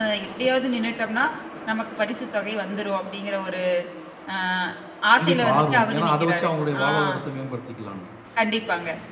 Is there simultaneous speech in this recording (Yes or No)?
Yes